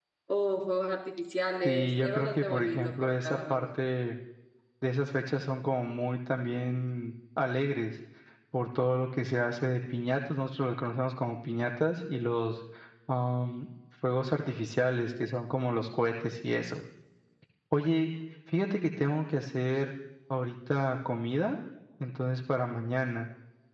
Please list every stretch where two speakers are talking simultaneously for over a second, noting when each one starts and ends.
1.6-3.8

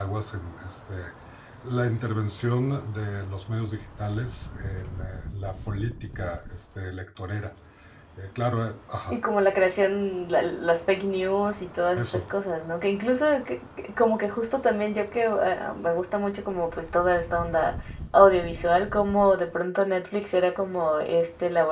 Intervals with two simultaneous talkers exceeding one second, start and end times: none

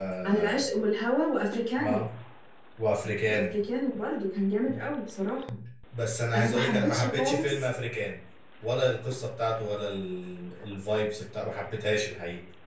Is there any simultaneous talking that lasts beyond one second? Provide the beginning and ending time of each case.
6.3-7.7

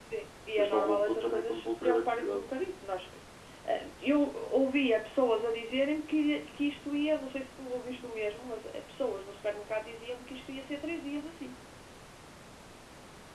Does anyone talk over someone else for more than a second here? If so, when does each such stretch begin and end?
0.6-2.4

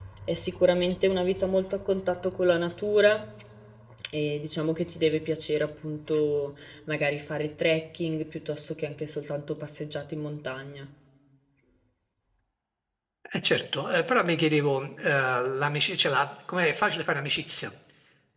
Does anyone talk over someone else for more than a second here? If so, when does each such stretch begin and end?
none

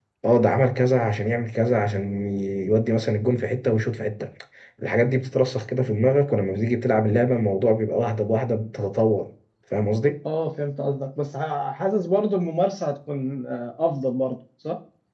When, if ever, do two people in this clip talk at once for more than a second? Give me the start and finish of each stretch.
none

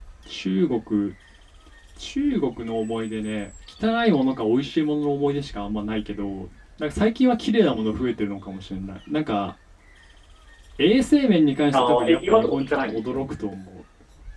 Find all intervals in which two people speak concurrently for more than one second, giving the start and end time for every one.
11.7-13.3

